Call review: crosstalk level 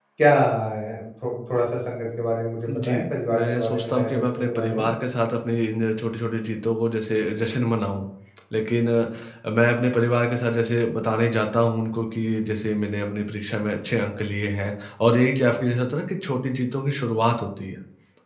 present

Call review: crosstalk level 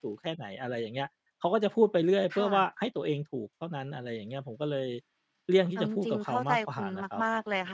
present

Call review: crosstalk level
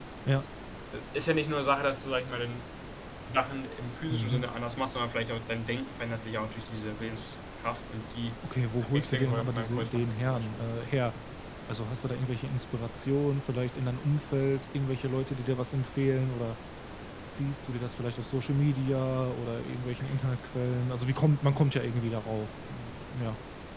present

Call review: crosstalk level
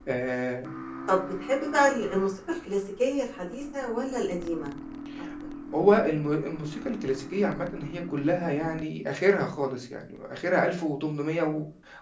none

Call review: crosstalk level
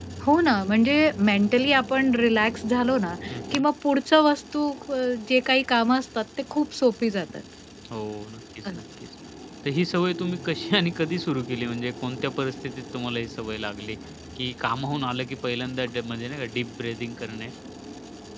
none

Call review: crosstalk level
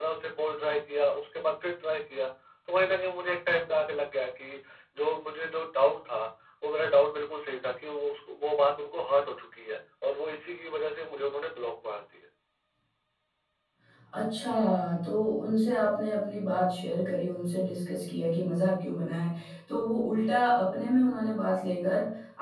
none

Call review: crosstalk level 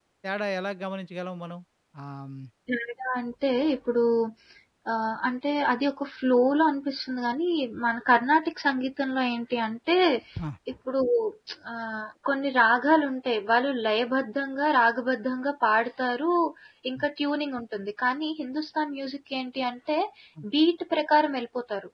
none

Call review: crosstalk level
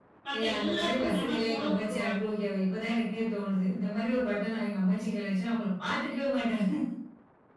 present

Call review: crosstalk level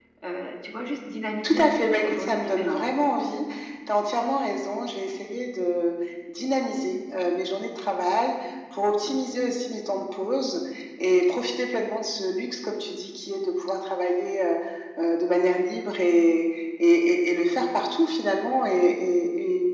present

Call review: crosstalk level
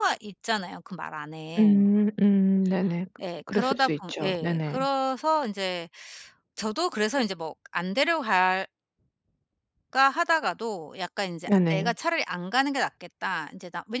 present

